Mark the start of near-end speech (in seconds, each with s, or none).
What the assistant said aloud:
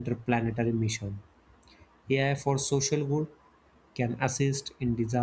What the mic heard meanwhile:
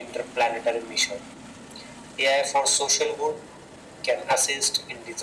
none